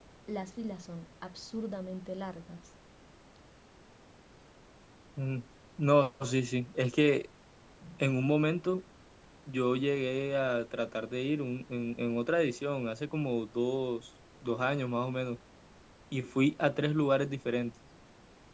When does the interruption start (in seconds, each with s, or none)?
none